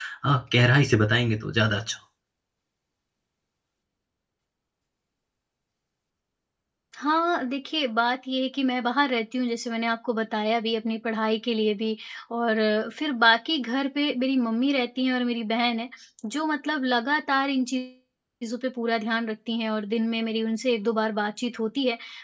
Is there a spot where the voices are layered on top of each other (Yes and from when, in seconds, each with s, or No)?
No